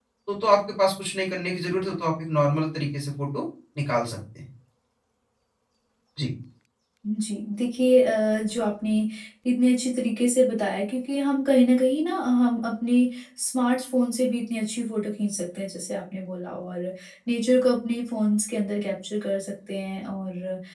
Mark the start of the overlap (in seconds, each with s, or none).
none